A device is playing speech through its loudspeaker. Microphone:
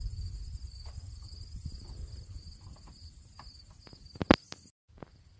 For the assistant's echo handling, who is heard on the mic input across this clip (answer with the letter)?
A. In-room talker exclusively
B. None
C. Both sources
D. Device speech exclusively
B